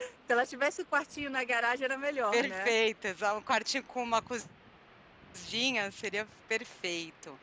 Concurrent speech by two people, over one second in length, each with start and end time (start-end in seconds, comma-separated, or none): none